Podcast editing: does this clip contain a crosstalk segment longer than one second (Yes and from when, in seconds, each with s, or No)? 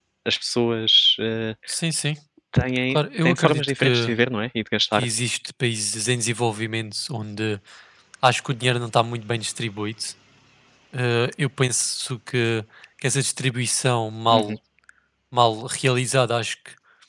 Yes, from 2.9 s